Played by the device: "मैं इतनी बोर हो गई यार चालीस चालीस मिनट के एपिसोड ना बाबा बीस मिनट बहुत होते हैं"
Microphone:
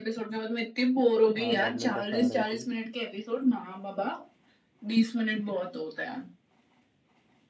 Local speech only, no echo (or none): हाँ गॉबलेट ऑफ फायर आई थी